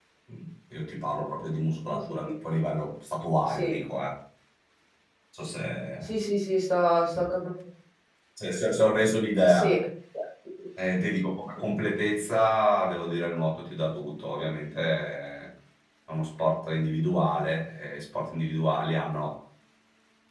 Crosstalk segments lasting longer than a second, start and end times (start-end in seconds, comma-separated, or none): none